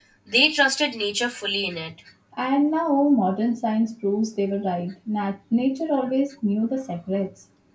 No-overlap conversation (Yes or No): Yes